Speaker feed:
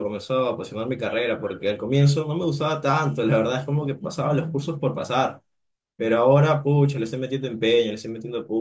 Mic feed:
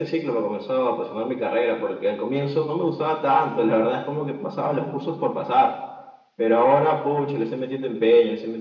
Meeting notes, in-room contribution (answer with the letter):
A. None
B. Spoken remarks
A